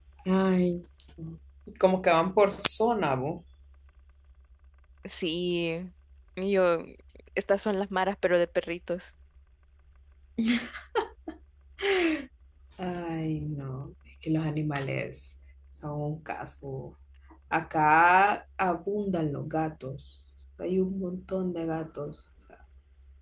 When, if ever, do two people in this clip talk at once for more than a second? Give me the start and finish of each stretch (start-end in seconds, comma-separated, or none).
none